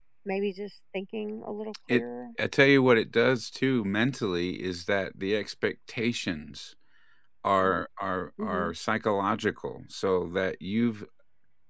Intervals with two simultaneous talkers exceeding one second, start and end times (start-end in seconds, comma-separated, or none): none